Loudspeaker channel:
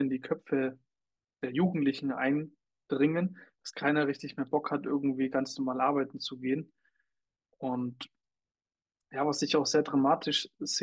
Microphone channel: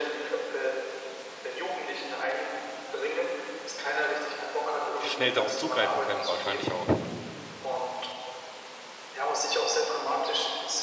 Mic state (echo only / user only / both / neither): both